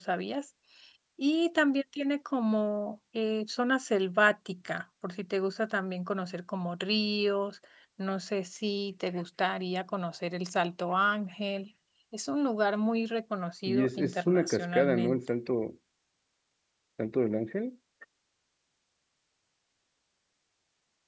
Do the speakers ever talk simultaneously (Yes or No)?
Yes